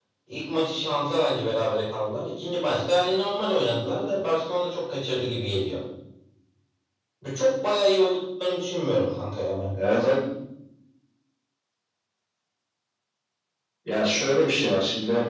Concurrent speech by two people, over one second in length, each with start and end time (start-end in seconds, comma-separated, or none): none